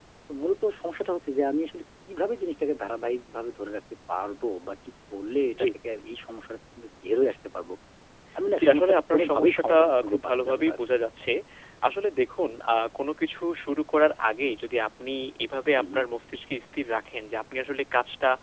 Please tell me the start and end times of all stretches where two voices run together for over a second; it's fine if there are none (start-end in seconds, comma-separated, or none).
8.6-10.8